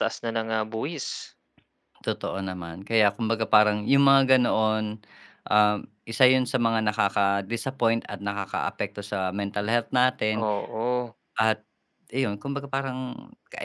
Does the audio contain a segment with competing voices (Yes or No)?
No